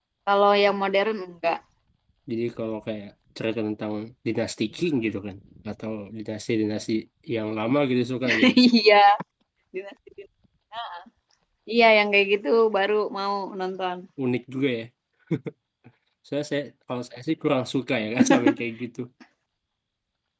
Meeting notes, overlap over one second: none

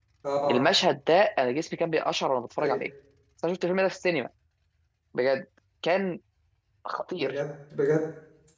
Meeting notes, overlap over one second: none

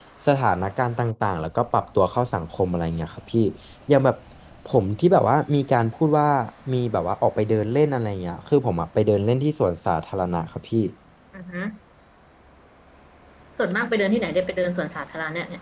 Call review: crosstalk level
none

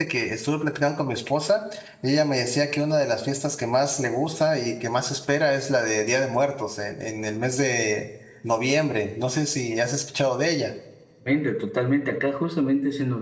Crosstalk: none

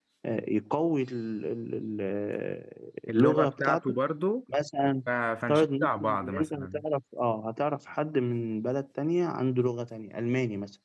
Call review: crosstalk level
present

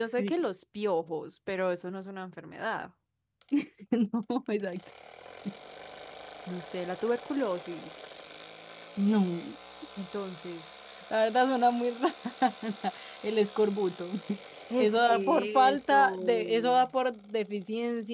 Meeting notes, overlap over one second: present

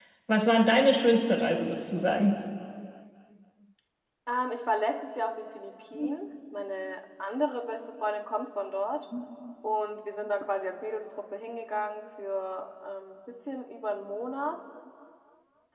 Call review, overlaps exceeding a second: none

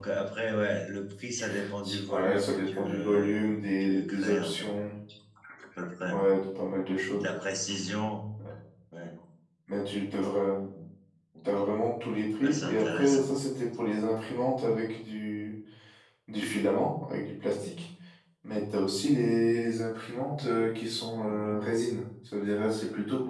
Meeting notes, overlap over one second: present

